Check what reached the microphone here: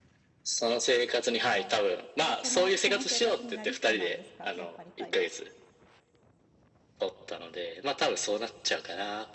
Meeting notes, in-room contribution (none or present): present